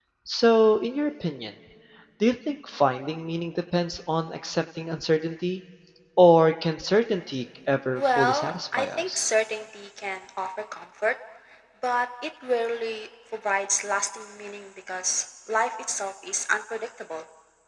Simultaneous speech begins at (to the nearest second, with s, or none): 8 s